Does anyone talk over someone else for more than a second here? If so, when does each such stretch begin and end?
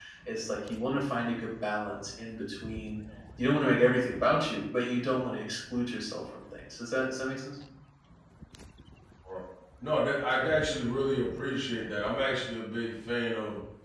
none

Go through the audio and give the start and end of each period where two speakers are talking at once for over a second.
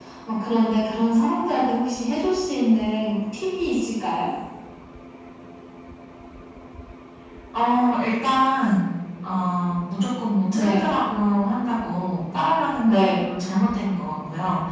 none

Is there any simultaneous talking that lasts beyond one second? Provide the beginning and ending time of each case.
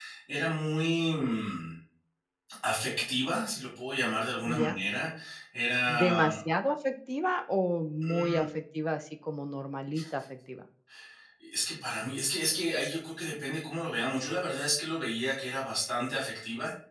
none

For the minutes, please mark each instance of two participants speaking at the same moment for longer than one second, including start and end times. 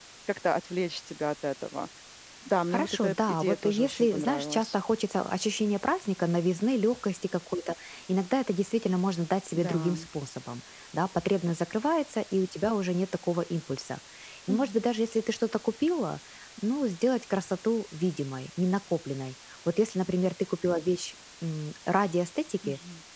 2.7-4.7

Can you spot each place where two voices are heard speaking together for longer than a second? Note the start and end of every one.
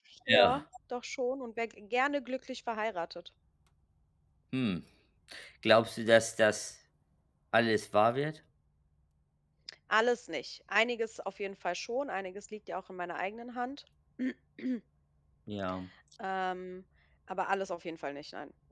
none

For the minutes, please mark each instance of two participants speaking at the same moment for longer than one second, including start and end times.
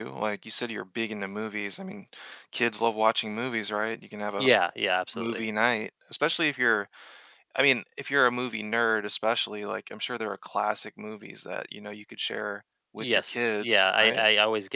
13.0-14.2

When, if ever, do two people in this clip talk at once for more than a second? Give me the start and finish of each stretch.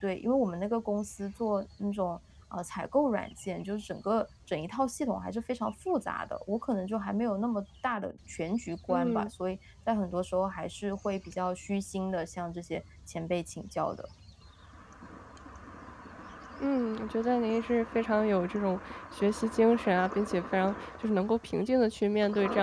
none

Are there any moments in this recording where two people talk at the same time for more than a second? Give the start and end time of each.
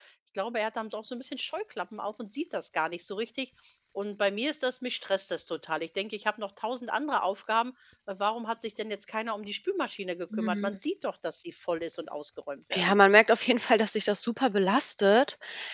none

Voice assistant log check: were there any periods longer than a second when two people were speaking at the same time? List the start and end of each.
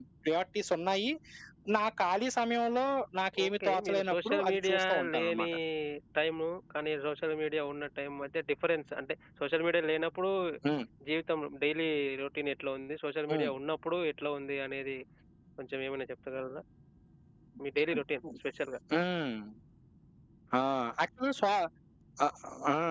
3.5-5.5

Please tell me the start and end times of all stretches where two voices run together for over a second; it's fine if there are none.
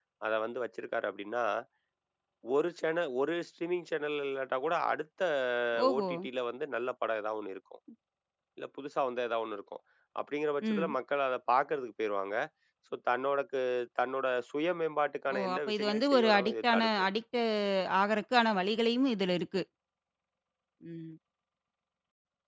15.3-17.1

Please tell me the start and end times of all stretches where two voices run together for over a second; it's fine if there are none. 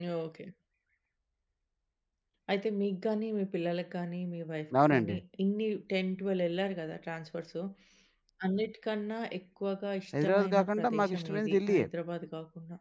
10.2-11.8

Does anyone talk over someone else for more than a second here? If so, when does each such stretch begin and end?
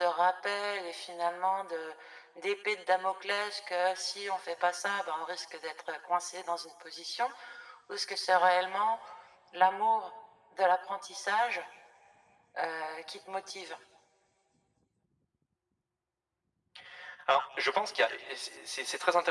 none

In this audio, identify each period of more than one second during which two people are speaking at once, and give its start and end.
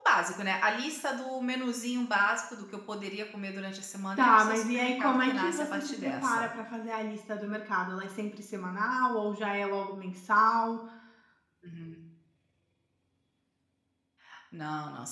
4.2-6.5

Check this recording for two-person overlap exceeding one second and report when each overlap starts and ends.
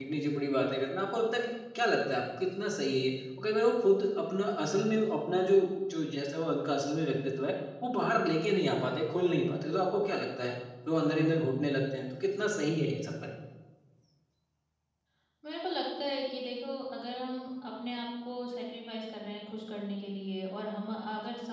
none

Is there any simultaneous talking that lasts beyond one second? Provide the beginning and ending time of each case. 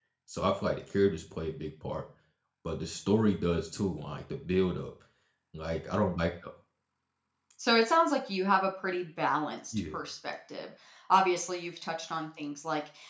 none

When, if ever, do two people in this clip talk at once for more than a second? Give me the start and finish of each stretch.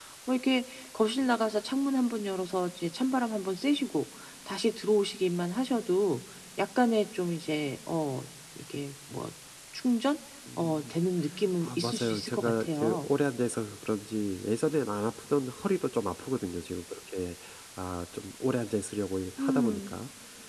11.6-13.1

